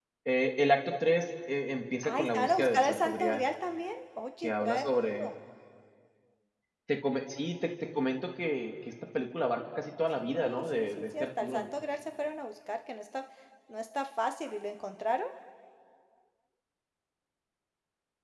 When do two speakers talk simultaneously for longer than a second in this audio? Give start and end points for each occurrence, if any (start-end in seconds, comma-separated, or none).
2.0-3.4, 10.2-11.6